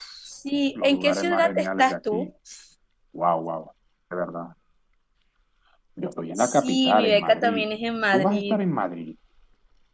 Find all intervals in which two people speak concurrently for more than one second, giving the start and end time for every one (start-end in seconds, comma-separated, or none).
0.8-2.3, 6.4-7.6